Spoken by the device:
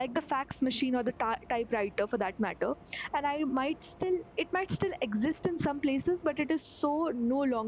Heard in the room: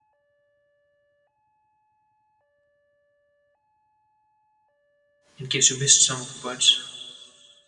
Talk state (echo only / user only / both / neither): user only